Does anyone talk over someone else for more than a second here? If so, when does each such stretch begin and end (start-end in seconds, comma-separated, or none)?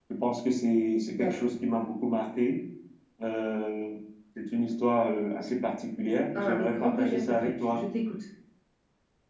6.3-7.8